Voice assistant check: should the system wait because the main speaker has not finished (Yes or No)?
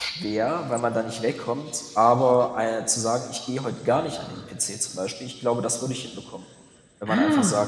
Yes